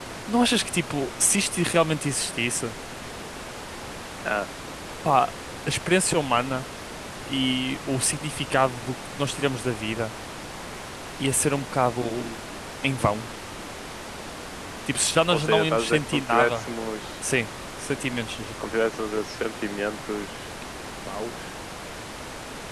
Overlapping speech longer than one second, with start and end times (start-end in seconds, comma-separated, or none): 15.3-16.7